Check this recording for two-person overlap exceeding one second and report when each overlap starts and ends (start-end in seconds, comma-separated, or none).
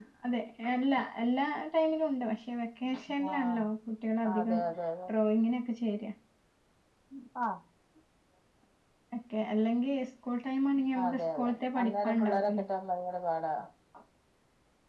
11.0-12.7